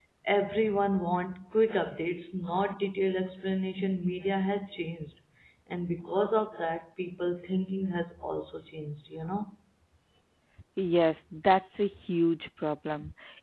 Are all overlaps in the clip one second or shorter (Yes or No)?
Yes